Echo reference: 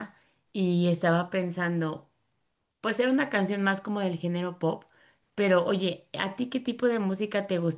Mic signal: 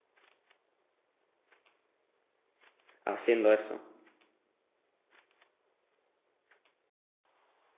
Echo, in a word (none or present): none